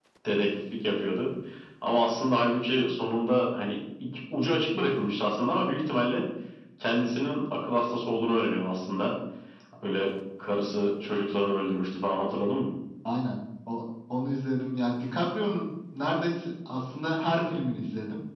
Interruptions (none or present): none